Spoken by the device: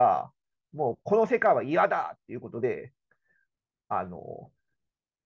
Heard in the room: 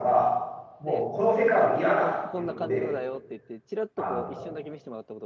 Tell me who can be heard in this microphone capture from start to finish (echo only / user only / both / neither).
both